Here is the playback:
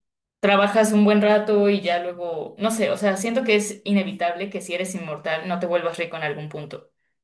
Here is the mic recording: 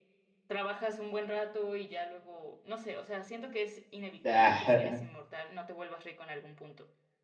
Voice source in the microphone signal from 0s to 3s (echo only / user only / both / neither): echo only